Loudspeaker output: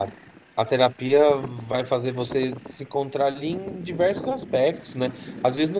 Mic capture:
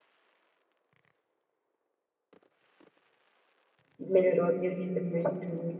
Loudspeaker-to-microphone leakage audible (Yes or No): No